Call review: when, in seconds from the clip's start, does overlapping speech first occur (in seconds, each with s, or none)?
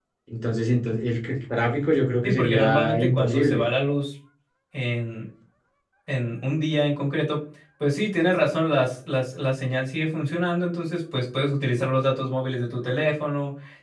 2.2 s